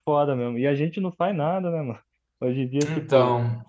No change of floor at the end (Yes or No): Yes